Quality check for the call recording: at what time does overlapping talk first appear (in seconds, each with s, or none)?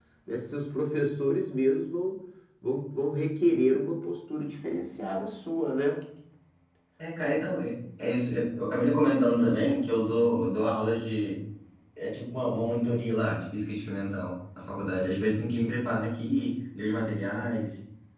none